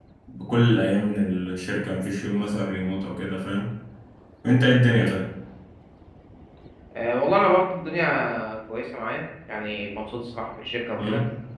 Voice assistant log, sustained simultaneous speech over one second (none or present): none